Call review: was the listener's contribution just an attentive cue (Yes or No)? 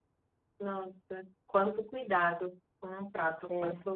Yes